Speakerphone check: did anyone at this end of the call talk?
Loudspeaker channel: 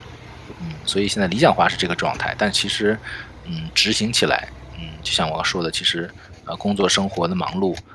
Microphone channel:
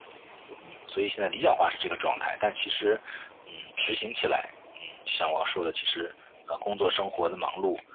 No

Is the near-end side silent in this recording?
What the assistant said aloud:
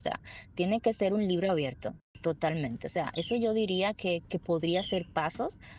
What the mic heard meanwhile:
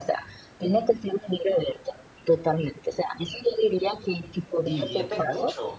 No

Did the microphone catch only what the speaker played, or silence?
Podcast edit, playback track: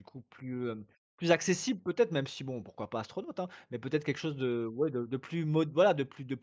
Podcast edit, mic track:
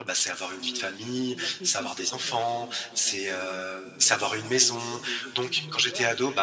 No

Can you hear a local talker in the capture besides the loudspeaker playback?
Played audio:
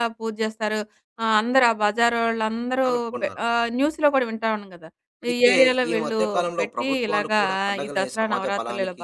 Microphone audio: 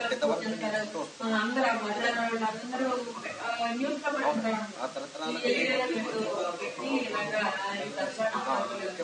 Yes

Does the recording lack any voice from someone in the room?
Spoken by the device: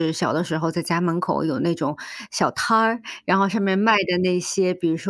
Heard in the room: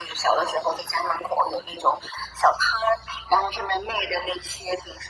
Yes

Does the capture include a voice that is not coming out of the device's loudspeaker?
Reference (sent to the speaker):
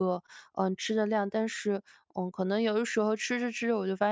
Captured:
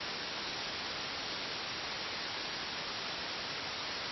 No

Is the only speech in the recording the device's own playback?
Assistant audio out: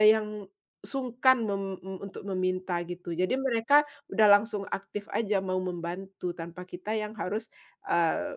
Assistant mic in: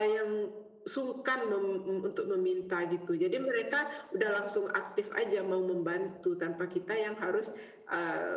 Yes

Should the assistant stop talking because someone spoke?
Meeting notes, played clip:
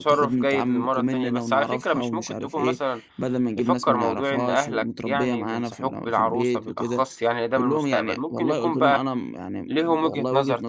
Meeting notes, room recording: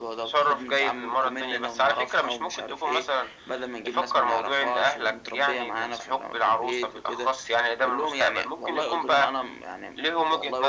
No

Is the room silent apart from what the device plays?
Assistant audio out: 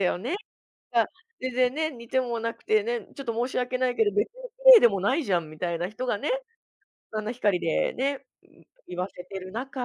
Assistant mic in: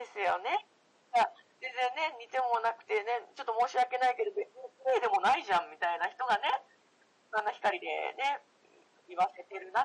Yes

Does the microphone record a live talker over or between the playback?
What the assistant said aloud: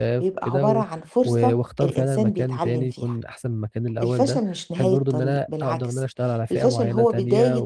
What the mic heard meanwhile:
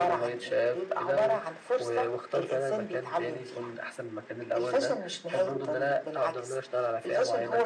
No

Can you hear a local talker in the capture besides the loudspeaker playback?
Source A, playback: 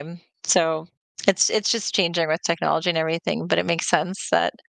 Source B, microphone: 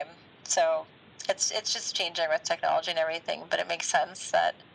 No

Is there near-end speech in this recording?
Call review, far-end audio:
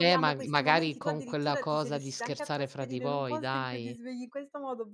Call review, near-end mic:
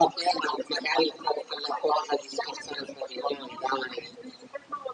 No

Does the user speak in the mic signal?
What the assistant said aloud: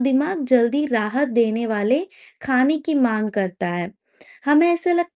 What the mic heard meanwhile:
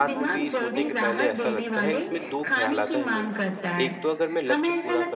Yes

